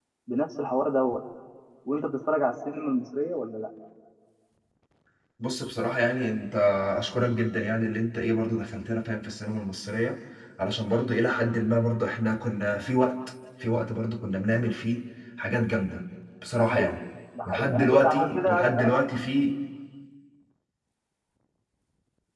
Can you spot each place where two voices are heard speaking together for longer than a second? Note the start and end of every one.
17.4-18.9

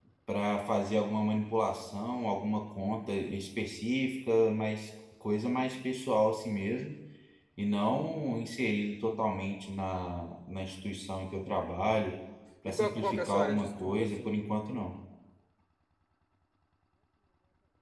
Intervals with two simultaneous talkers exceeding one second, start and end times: 12.6-14.3

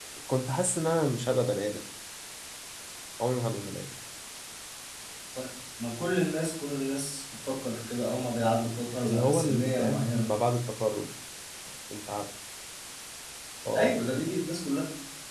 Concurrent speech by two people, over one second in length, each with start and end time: 9.1-10.3

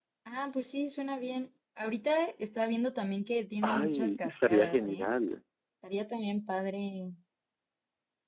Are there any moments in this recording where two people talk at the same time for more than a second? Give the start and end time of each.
3.6-5.1

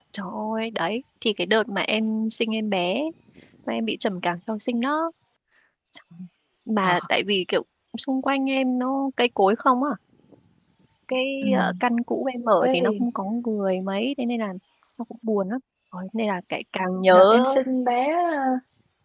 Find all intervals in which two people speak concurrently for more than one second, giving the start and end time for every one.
none

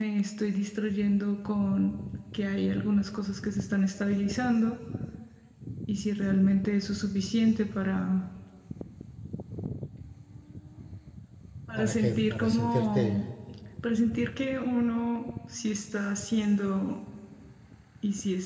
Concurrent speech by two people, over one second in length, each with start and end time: 11.8-13.2

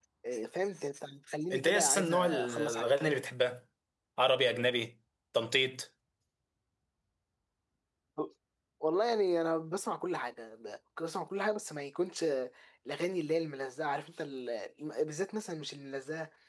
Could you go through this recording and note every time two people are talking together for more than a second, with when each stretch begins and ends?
1.5-2.9

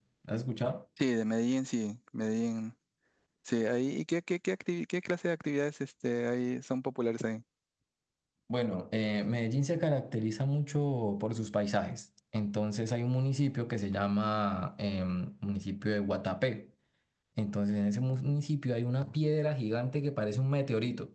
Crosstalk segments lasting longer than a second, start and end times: none

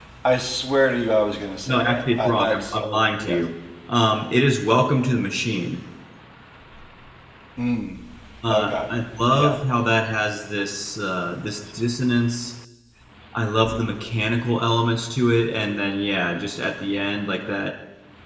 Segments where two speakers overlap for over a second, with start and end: 1.7-3.4

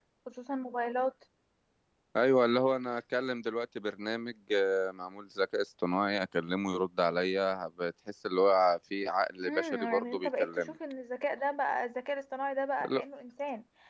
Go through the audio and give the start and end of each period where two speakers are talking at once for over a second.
9.4-10.7

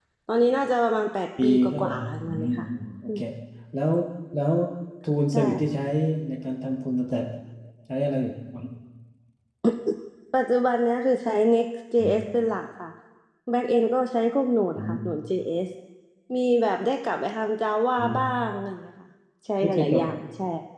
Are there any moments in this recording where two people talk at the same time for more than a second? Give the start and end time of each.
1.4-2.7

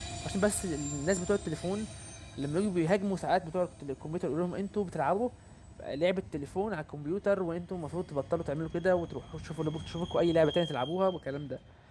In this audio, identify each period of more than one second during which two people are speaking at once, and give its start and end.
none

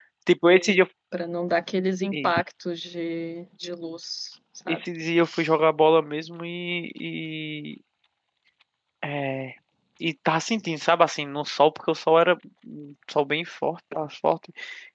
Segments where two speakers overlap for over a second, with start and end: none

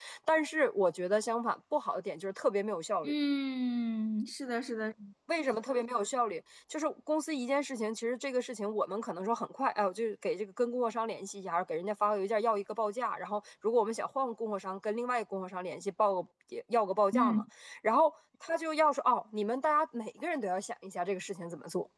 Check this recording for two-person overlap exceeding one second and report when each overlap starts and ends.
none

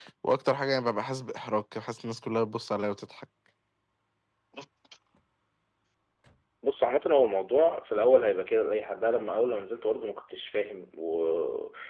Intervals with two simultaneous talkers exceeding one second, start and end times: none

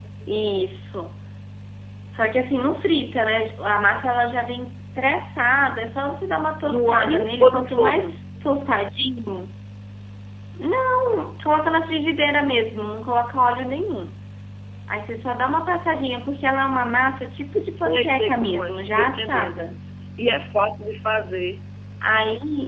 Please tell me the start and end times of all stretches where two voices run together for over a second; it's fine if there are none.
6.7-8.1, 17.8-19.7

